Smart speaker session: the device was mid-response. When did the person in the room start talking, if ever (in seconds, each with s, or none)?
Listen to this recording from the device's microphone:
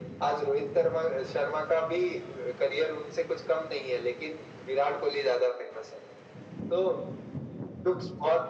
none